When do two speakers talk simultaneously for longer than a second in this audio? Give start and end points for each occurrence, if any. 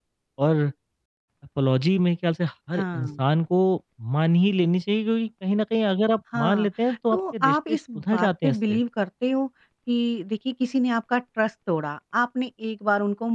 7.1-8.8

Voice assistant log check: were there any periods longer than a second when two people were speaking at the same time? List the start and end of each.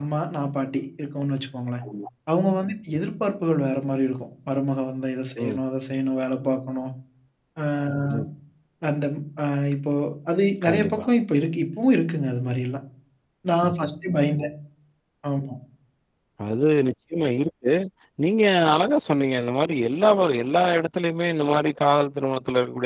none

